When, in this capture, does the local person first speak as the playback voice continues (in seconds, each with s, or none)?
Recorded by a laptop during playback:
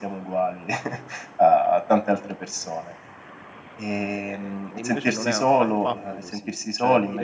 4.1 s